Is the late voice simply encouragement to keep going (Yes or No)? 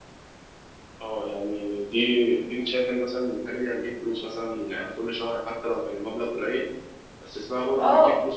No